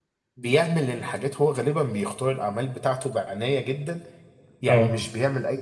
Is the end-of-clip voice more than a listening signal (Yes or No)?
No